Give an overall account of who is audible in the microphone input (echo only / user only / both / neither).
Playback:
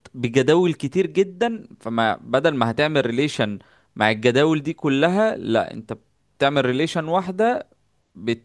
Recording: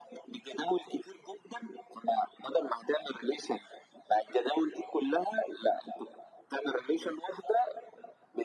echo only